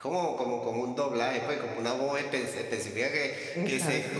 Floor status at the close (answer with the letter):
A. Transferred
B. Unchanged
B